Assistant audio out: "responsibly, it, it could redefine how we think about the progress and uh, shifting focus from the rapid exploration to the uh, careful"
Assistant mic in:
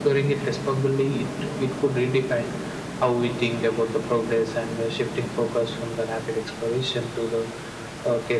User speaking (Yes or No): No